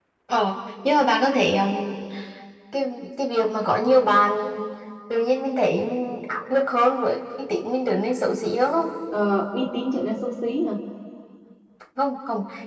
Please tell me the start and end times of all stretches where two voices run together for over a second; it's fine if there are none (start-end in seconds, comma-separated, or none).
none